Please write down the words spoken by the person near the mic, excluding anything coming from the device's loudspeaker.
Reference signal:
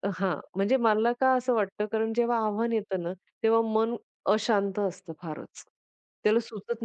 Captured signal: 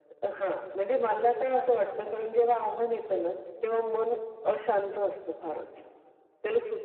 none

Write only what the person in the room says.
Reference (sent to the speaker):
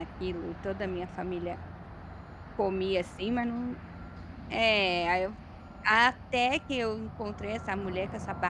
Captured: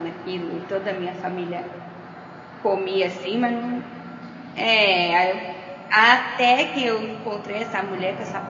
none

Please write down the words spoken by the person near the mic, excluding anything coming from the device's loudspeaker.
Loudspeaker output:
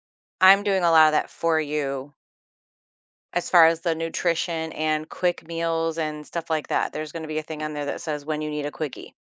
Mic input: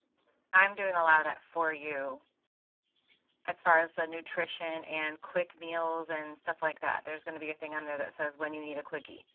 none

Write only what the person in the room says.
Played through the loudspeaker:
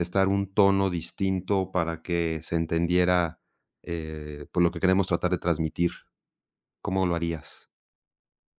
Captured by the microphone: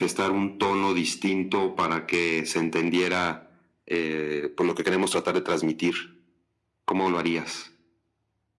none

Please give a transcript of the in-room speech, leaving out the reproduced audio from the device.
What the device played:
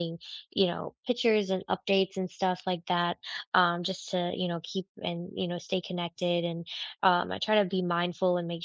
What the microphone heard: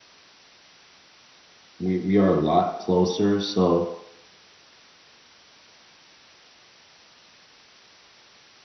we we are a lot closer, so

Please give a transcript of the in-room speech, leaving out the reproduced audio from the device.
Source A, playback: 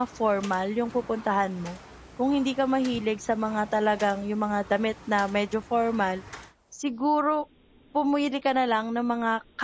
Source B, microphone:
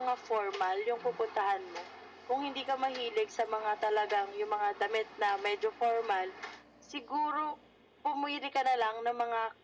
none

